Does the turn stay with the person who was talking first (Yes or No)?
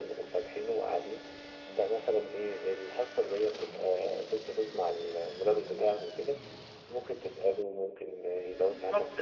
No